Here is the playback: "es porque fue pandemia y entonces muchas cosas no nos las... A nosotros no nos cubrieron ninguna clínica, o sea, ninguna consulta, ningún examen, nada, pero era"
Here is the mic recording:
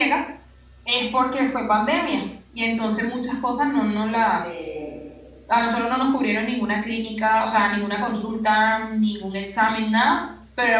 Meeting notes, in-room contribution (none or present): present